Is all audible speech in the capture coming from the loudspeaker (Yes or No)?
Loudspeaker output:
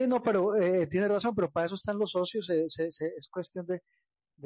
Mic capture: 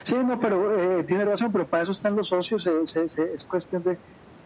Yes